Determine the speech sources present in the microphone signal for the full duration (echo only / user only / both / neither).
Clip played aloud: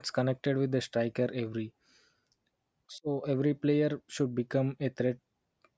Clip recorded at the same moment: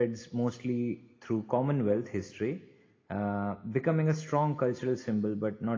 user only